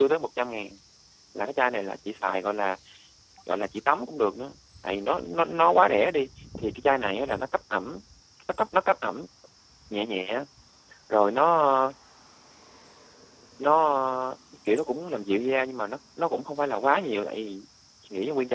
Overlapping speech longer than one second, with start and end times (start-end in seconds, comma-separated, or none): none